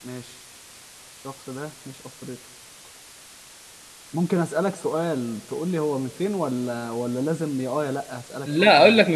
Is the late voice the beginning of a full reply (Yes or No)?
Yes